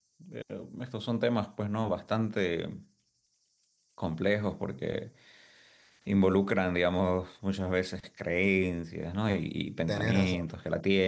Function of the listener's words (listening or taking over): listening